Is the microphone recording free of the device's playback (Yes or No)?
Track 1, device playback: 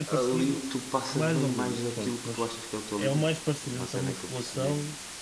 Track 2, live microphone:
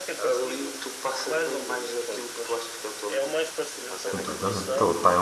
No